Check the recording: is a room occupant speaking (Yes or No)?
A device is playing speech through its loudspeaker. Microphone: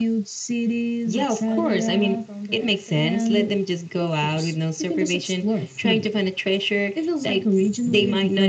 Yes